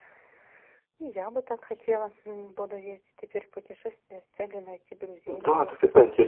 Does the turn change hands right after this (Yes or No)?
Yes